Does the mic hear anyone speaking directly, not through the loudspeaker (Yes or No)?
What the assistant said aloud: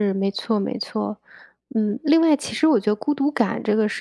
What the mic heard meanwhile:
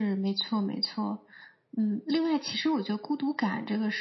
No